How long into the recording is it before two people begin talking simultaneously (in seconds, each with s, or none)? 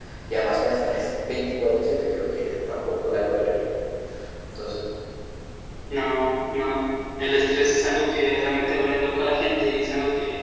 none